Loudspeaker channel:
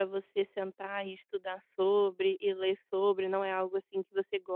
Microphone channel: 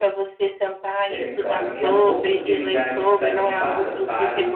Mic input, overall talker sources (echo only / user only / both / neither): both